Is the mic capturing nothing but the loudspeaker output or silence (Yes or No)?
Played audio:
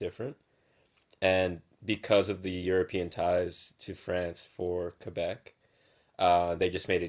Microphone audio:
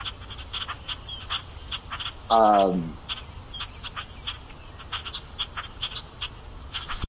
No